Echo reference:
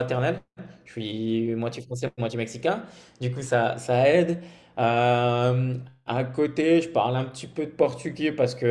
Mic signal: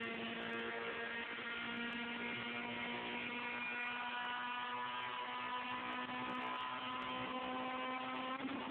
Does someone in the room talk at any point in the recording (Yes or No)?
No